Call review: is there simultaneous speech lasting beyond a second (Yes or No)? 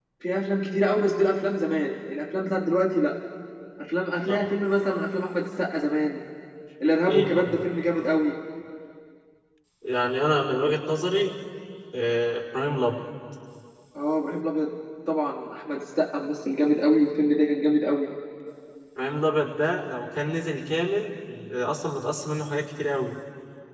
No